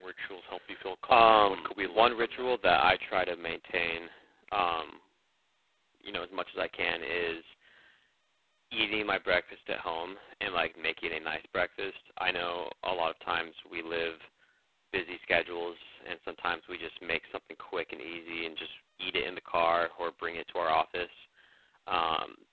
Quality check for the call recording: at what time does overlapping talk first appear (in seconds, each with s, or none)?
1.1 s